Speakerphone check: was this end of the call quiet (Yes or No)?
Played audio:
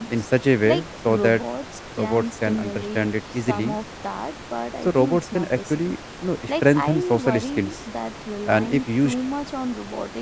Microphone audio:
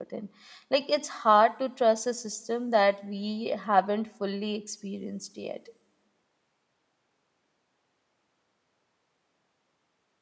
No